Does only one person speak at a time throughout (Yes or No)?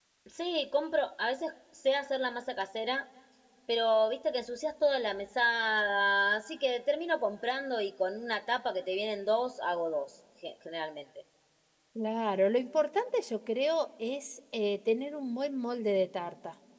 Yes